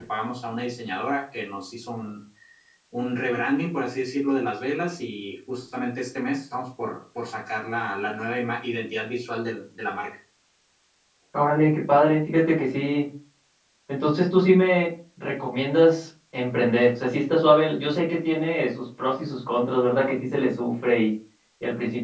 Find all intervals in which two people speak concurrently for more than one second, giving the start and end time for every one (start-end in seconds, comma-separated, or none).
none